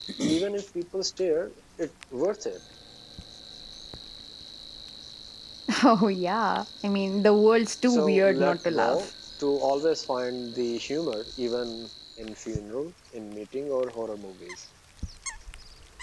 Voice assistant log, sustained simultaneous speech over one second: present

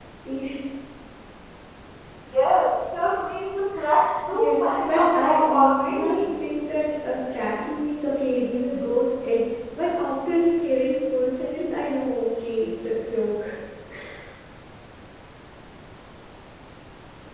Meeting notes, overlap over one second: present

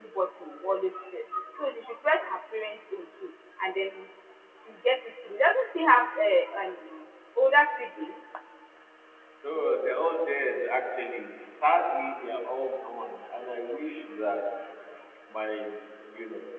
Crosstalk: none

